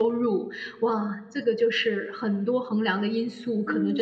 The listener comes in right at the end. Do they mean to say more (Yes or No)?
Yes